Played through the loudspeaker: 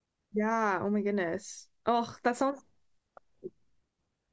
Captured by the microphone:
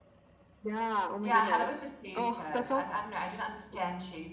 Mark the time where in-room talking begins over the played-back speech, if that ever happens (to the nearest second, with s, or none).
1 s